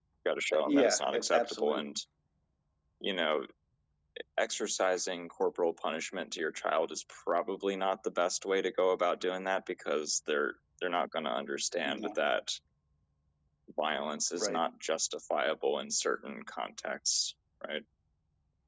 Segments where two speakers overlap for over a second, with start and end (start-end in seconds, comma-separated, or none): 0.5-1.9